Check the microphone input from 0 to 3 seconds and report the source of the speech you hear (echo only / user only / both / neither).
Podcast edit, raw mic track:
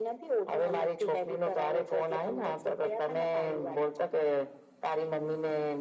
echo only